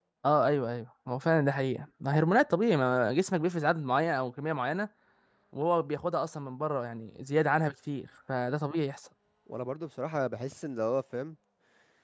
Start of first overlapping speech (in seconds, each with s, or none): none